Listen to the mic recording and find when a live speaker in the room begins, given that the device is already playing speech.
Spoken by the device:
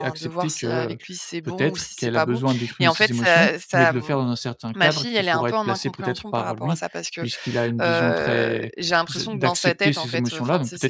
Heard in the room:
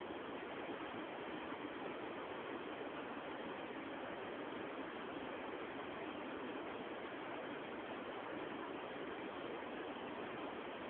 none

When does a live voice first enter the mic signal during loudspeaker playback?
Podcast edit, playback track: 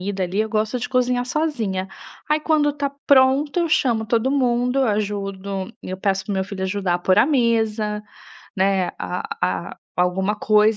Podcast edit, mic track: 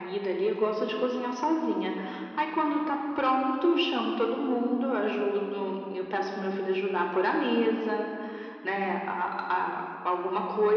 none

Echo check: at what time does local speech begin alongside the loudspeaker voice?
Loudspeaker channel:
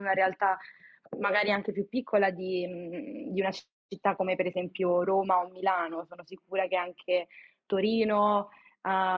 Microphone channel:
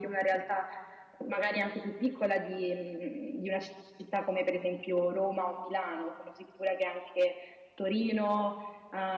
none

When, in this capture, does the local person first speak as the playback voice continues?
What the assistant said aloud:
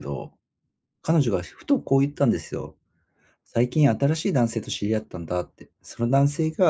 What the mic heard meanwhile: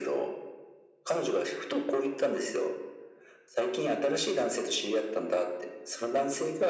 none

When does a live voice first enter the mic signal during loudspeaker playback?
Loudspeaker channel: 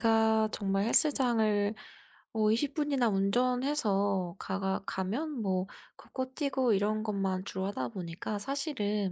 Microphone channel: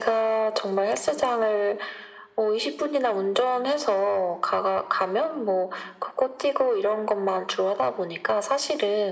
none

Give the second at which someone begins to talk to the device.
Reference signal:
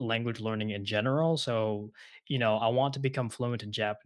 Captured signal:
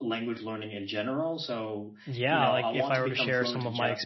2.0 s

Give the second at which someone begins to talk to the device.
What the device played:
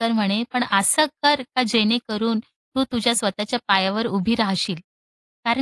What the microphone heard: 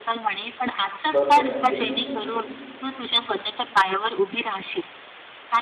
1.1 s

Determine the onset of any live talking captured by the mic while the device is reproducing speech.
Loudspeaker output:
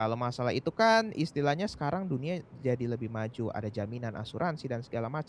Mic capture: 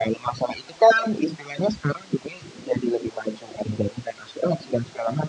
none

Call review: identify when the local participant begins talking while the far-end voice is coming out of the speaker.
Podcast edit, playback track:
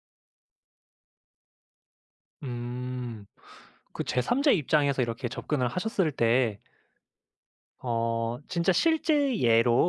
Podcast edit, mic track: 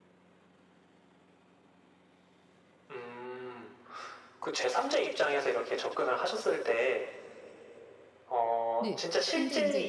8.8 s

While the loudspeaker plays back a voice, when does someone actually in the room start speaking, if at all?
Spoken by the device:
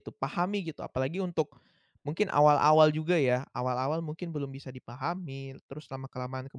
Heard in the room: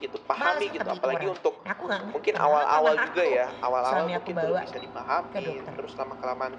0.4 s

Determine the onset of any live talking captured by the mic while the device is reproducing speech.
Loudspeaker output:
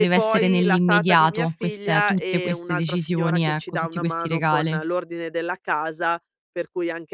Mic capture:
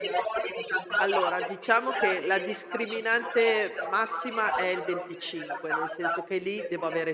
1.0 s

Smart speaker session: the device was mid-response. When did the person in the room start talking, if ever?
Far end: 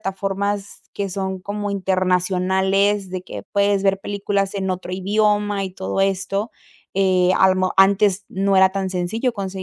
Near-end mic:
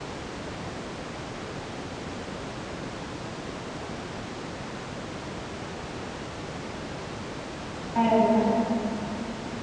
7.9 s

